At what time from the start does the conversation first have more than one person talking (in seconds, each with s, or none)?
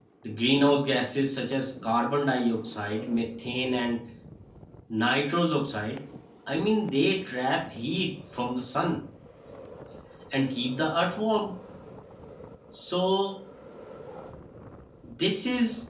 none